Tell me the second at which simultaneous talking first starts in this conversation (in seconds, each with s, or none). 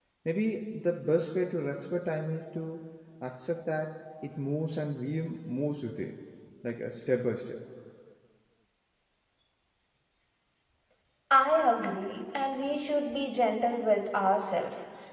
none